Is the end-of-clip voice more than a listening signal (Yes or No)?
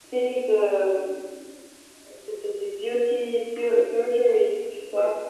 No